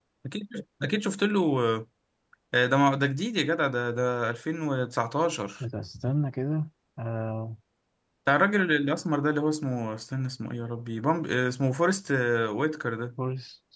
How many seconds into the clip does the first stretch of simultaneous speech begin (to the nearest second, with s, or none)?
none